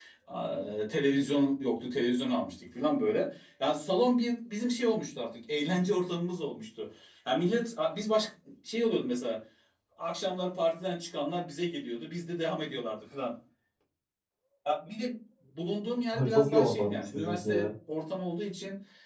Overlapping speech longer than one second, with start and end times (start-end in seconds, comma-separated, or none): 16.1-17.7